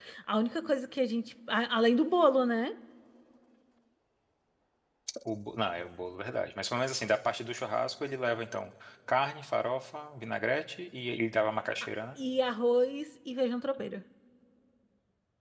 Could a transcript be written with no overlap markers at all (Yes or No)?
Yes